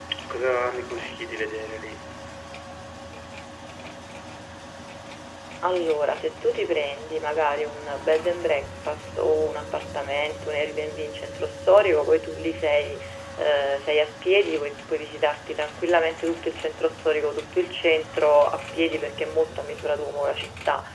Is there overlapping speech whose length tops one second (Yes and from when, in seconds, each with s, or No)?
No